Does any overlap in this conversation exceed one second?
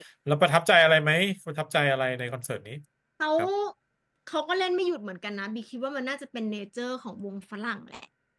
No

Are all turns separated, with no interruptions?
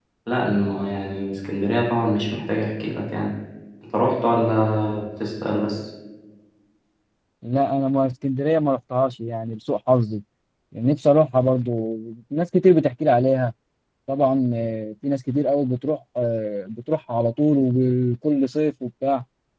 Yes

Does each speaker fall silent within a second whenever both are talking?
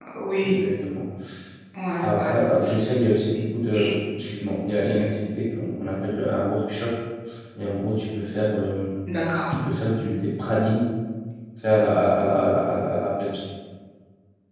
Yes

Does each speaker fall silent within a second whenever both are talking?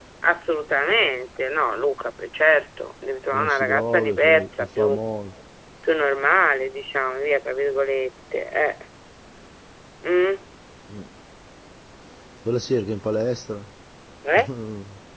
No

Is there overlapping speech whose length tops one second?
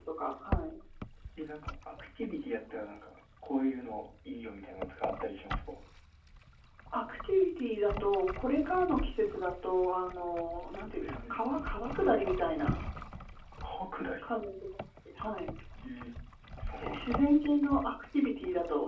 No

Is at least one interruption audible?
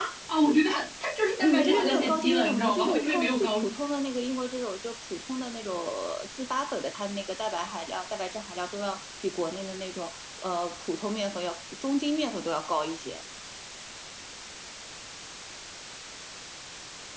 Yes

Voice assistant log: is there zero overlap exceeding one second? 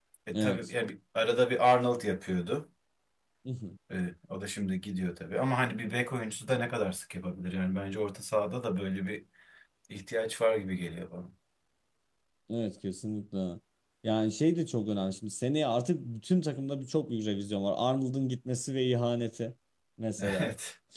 Yes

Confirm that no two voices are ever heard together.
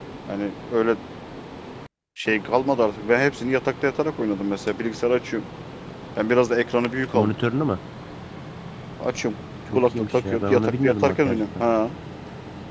No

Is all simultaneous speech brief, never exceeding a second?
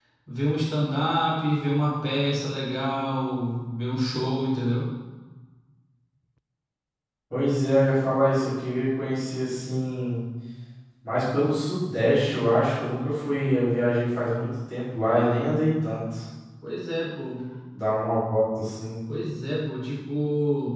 Yes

